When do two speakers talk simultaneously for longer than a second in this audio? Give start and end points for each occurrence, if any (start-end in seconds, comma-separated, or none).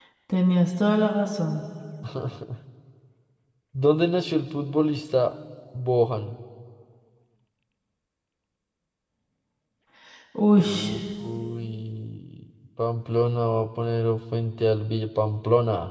none